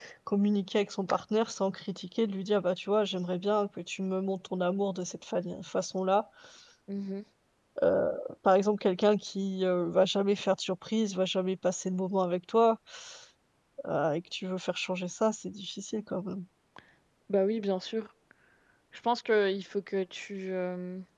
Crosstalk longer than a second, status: none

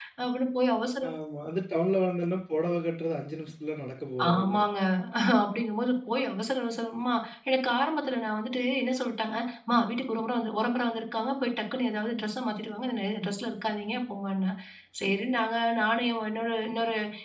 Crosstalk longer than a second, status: none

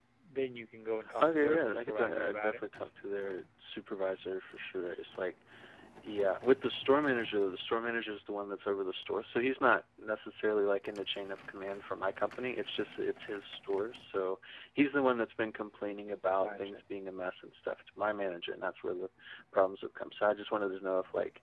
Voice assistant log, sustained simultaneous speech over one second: present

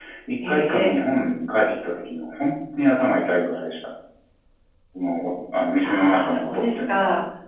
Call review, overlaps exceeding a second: present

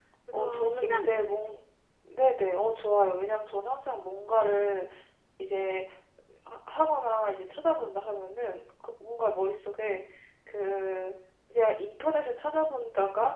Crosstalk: present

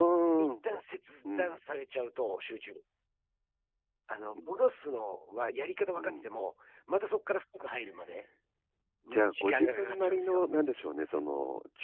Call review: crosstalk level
present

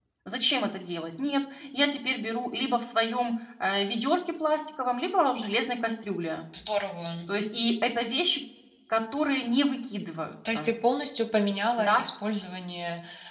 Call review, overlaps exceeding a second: none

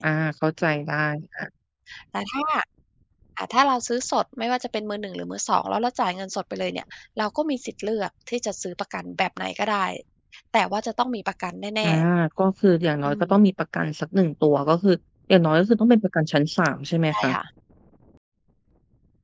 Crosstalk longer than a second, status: none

